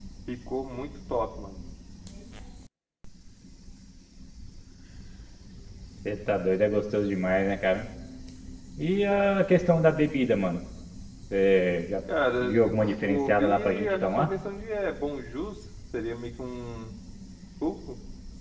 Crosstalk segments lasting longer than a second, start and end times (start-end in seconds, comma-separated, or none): 13.0-14.3